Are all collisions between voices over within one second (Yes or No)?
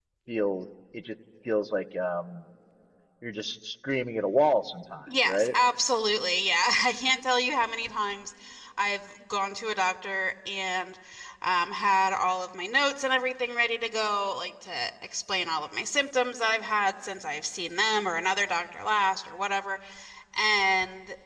Yes